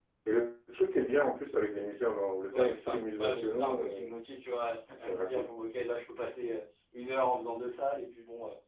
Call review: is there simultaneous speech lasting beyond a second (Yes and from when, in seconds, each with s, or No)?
Yes, from 2.5 s